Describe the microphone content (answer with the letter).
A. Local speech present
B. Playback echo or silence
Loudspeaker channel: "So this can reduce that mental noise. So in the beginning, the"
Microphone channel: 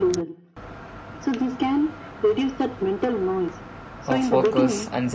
A